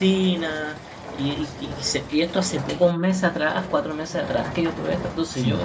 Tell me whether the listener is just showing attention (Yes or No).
No